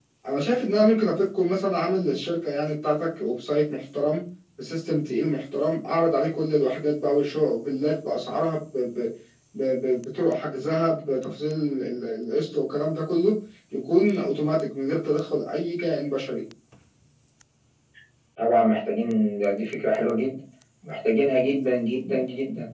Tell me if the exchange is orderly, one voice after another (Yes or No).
Yes